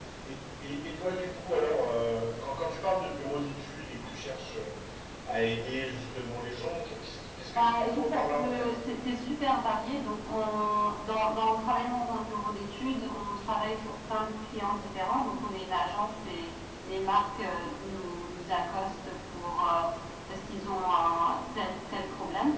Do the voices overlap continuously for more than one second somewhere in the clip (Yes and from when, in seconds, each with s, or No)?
Yes, from 7.5 s